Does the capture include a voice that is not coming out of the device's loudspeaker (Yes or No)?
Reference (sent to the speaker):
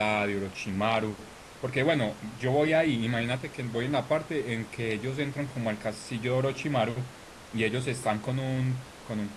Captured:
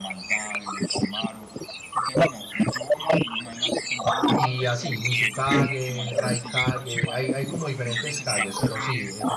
Yes